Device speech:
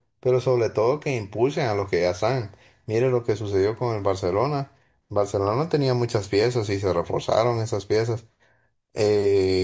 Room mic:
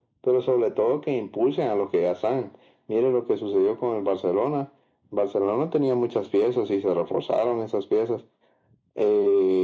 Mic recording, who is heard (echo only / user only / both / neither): echo only